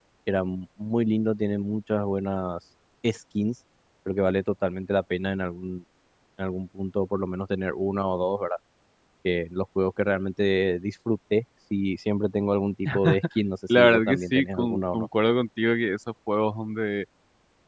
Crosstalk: present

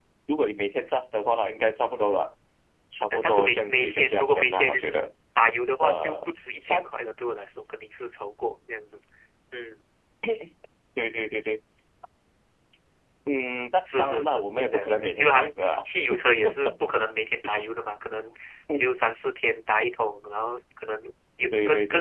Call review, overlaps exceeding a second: present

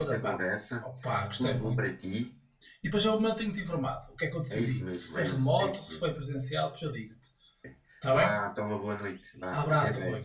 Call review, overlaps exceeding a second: present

